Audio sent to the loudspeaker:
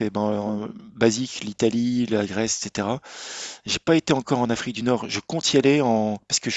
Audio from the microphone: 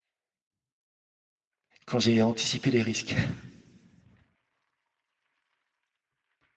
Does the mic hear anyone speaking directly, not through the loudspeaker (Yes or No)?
Yes